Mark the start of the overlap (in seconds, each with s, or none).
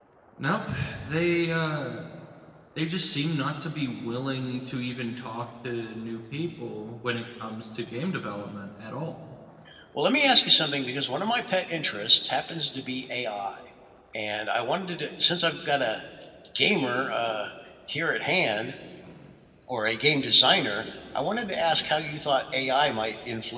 none